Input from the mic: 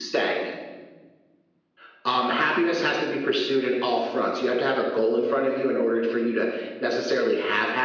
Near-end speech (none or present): none